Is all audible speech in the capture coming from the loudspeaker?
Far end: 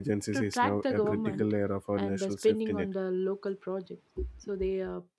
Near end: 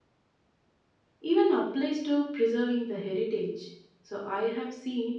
No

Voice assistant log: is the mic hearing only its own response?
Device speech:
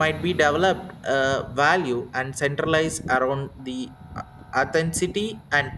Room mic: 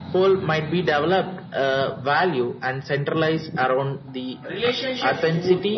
No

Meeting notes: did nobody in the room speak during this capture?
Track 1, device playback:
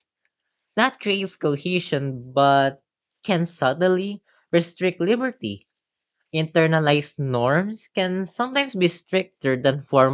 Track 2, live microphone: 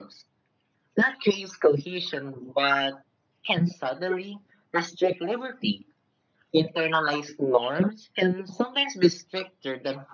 Yes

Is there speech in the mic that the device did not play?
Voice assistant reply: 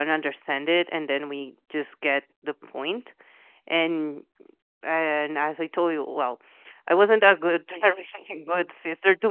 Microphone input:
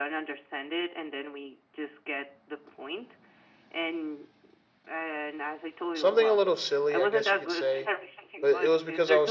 Yes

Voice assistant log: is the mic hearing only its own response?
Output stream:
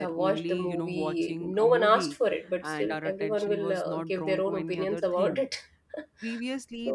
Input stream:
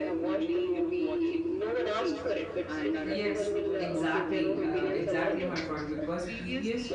No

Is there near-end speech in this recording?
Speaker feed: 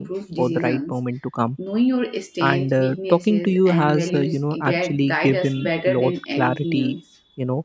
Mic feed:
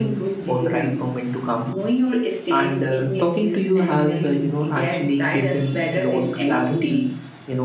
No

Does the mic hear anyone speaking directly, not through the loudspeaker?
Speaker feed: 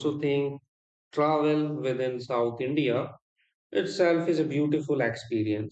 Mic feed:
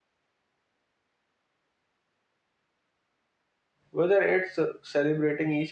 Yes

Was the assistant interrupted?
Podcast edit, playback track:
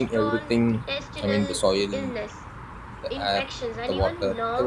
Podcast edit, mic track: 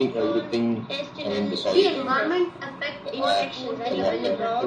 Yes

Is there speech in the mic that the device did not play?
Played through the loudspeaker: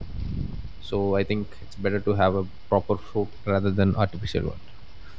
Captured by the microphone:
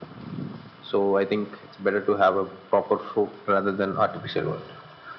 No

